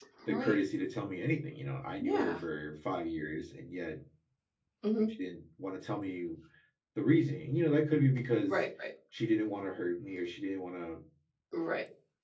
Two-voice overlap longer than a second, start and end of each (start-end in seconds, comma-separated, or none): none